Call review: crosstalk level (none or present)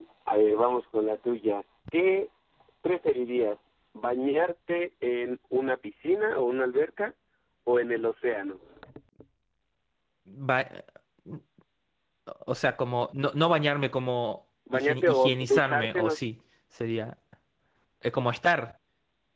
present